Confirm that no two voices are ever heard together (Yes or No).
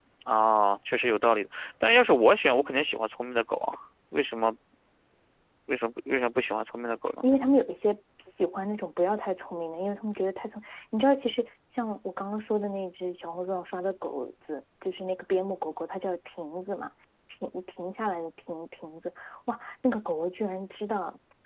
Yes